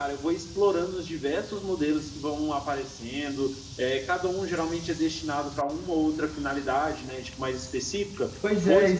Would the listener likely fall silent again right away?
No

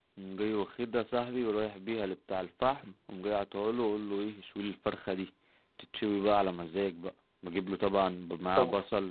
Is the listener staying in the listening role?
Yes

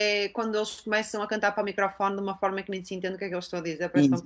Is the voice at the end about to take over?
Yes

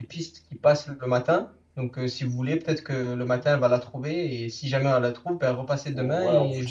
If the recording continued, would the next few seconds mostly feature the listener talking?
Yes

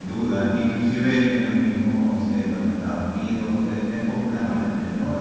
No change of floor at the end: Yes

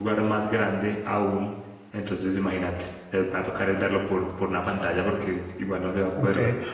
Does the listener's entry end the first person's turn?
Yes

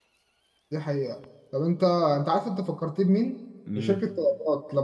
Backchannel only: Yes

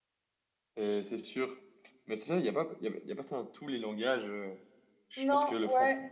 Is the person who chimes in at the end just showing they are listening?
No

